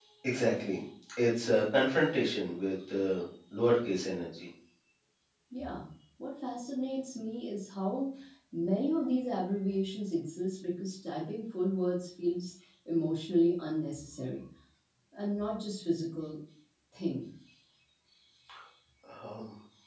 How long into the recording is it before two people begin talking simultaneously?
none

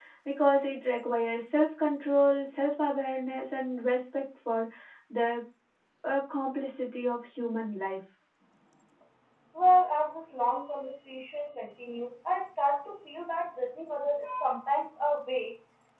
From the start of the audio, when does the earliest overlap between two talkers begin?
none

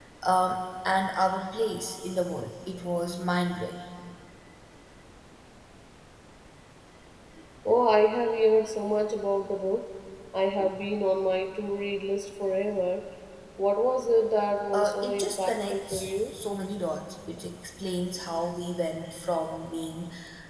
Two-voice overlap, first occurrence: 14.7 s

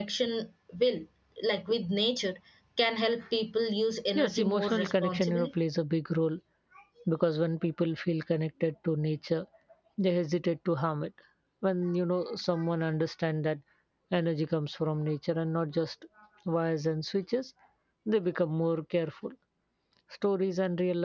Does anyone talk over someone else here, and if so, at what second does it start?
4.2 s

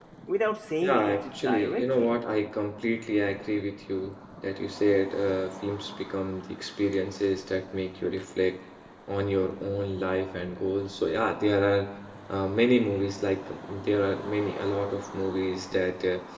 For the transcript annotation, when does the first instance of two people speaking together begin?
0.8 s

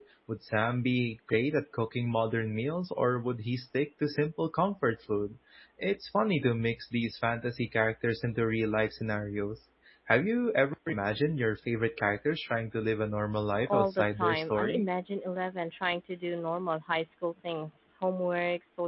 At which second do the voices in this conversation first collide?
13.7 s

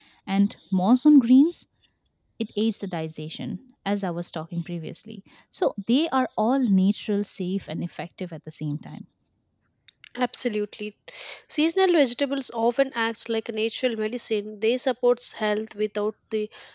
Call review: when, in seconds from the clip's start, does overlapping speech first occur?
none

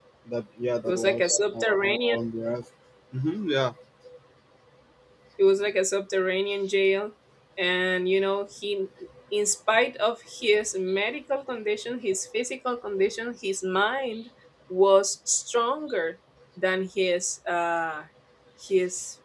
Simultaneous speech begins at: 0.9 s

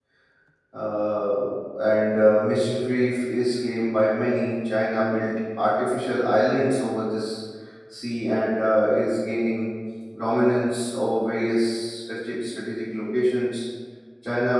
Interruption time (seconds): none

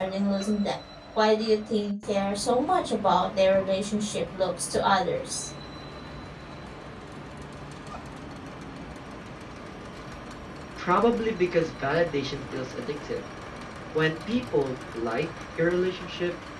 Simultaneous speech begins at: none

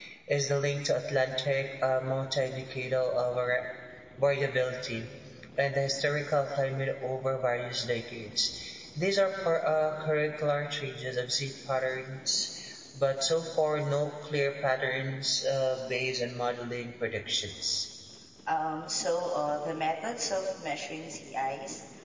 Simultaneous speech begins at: none

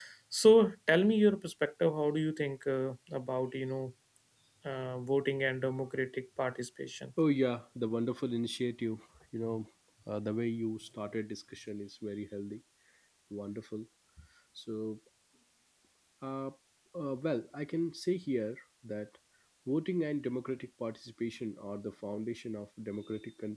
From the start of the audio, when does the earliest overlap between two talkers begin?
none

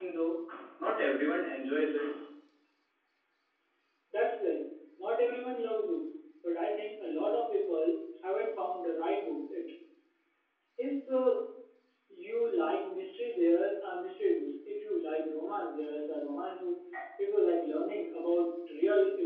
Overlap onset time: none

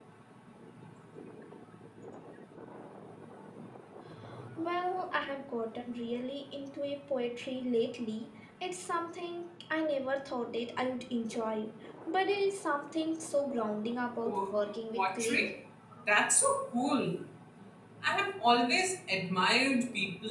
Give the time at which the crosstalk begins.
14.2 s

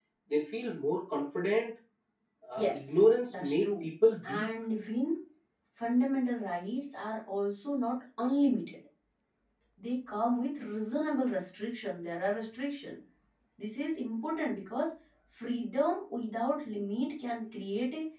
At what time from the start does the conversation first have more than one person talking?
2.6 s

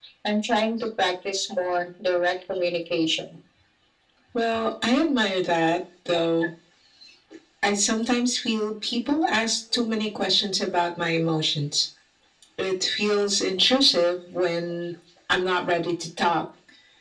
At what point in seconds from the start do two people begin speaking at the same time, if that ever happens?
none

